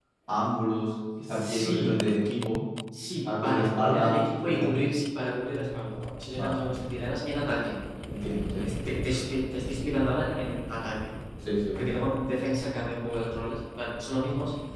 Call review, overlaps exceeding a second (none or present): present